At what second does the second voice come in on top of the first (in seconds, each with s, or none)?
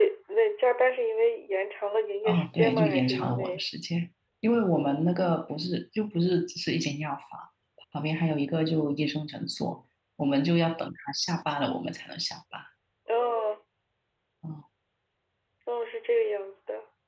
2.2 s